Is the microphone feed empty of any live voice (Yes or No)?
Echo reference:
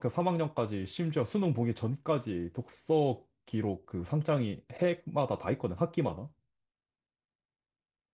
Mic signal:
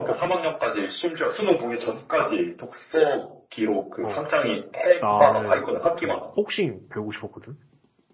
No